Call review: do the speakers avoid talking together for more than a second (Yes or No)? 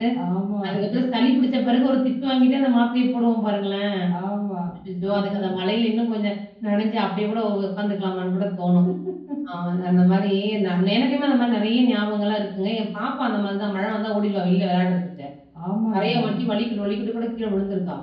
Yes